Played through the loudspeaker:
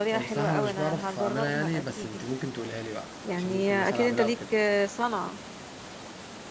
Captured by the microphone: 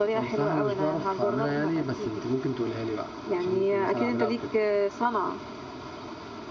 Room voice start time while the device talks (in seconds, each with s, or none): none